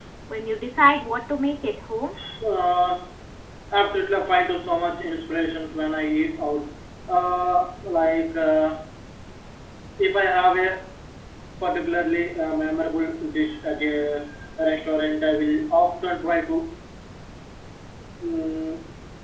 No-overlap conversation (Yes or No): Yes